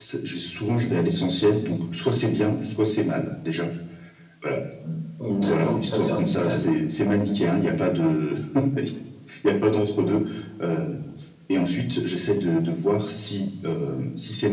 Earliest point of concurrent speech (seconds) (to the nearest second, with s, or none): 5 s